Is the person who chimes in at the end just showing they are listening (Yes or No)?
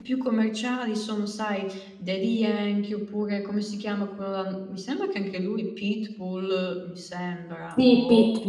No